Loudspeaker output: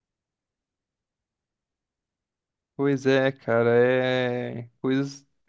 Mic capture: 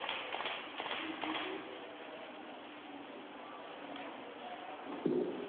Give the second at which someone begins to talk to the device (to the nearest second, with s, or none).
none